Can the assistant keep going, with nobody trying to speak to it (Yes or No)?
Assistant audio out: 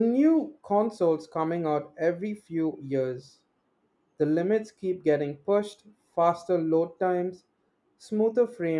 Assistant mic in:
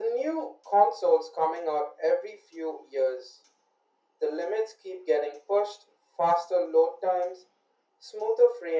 Yes